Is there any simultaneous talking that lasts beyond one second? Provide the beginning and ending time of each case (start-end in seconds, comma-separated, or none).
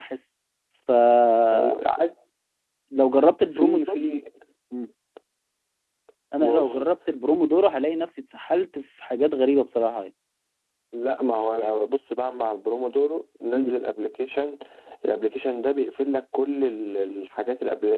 none